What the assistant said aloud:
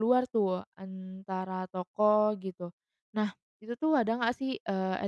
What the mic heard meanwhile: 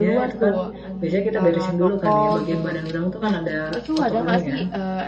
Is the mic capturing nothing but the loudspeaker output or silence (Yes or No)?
No